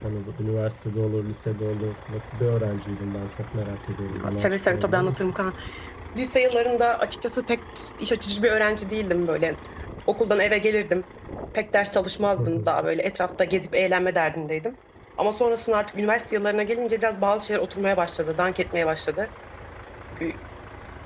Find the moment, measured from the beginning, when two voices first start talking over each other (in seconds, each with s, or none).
4.1 s